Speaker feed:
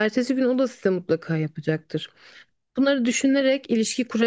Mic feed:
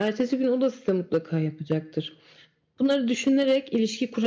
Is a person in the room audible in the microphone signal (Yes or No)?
No